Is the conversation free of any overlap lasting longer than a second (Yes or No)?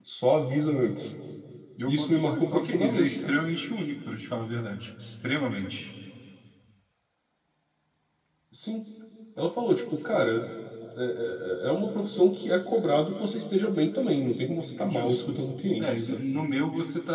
No